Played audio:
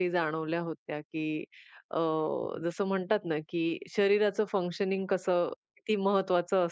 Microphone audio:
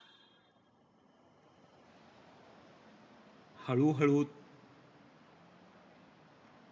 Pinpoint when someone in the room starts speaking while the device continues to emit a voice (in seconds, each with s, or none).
3.7 s